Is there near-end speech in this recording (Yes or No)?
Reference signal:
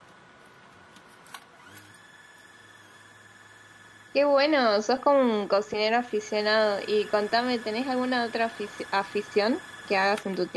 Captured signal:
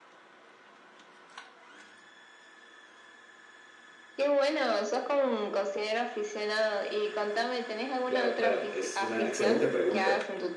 Yes